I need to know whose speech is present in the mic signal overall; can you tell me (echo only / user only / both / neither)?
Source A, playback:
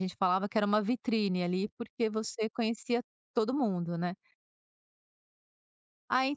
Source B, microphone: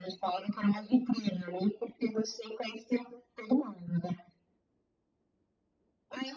echo only